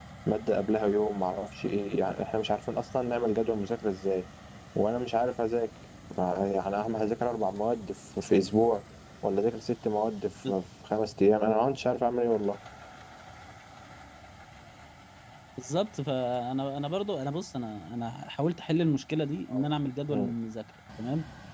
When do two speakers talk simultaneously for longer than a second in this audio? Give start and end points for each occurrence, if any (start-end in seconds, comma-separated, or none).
none